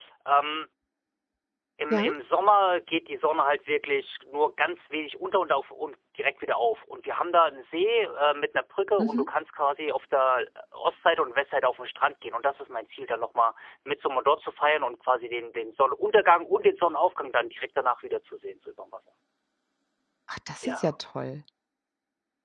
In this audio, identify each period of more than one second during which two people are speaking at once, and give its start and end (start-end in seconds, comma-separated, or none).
none